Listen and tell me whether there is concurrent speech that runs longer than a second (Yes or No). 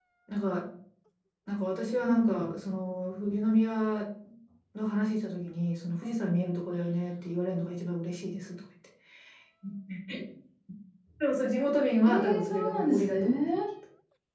Yes